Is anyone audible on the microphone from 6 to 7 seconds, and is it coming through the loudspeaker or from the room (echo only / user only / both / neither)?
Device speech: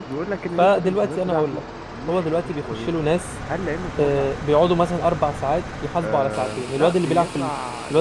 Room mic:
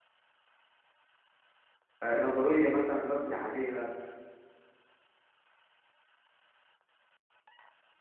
neither